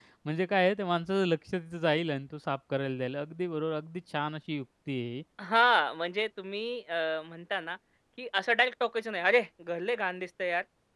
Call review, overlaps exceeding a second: none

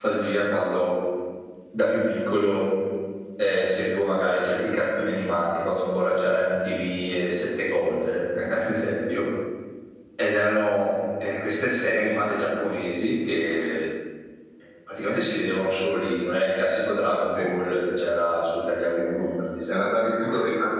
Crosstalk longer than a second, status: none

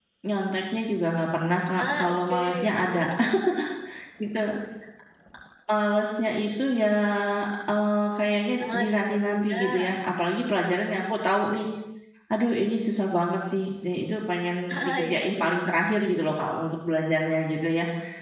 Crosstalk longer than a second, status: present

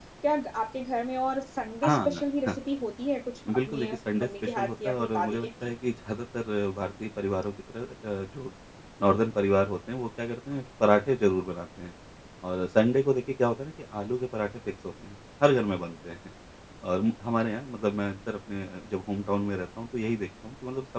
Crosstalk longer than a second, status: present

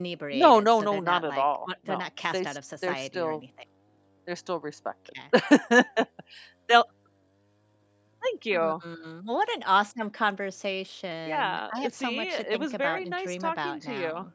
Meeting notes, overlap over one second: present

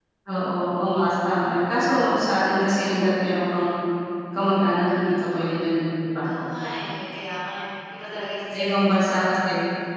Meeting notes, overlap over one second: none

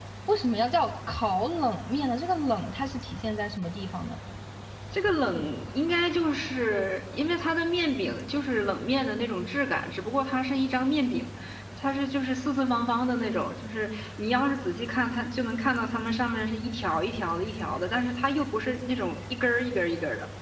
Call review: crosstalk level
none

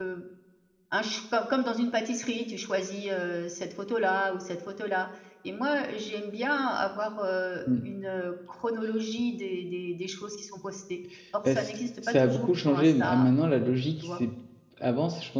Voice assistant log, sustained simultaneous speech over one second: present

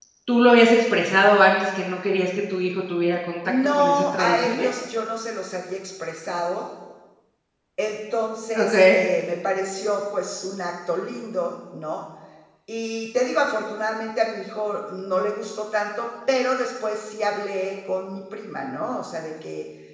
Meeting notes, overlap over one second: present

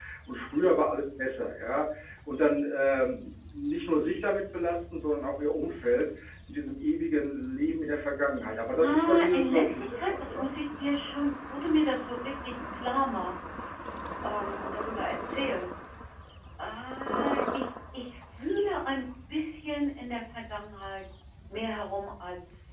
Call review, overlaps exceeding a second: present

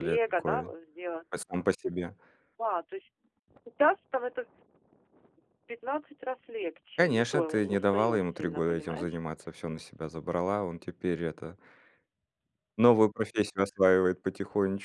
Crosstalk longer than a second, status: present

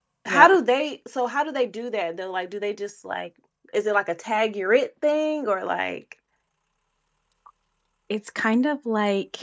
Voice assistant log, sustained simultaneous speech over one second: none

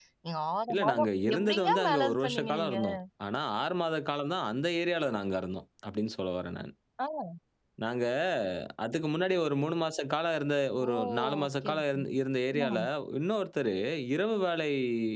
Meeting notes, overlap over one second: present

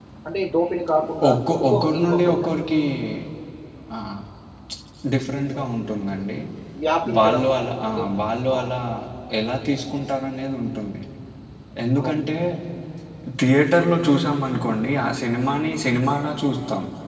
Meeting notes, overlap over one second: present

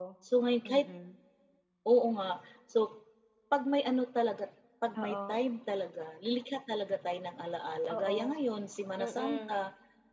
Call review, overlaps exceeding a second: none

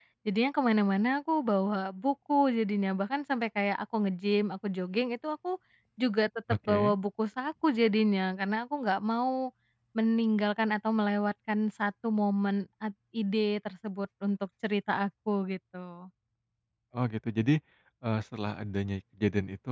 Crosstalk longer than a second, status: none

